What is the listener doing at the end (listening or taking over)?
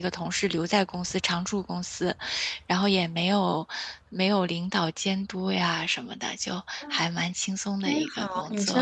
taking over